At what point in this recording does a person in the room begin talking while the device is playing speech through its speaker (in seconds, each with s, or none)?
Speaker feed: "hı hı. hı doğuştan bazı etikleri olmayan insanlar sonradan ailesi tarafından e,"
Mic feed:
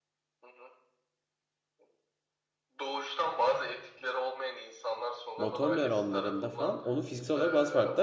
5.4 s